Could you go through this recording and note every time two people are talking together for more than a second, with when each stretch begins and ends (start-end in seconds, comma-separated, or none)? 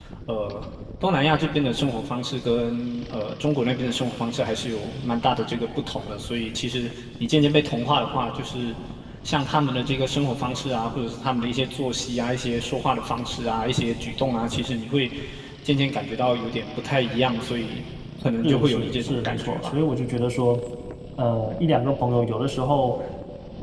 18.4-19.8